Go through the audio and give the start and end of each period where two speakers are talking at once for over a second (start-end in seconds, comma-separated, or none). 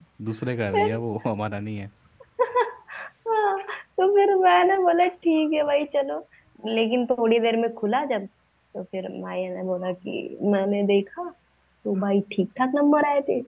none